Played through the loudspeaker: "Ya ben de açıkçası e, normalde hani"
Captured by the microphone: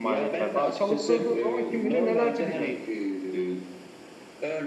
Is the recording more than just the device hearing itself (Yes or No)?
Yes